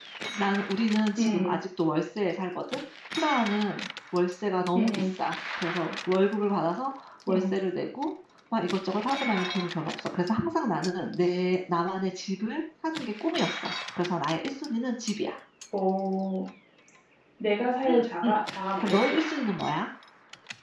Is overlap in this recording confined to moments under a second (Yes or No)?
Yes